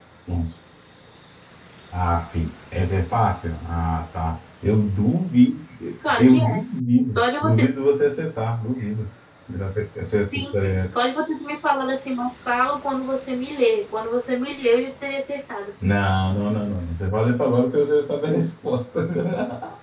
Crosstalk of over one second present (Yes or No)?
No